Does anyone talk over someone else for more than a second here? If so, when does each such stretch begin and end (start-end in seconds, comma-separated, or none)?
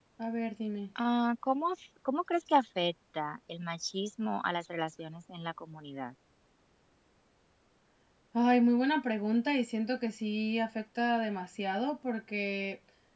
none